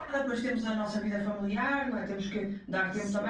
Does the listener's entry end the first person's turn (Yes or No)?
No